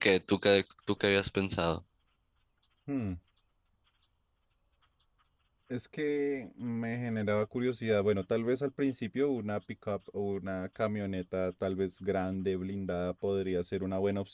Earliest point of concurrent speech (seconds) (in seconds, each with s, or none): none